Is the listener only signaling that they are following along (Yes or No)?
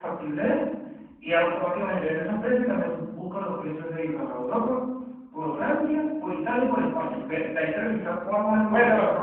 No